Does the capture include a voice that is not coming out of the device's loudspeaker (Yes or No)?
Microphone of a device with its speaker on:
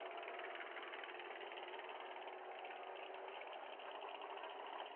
No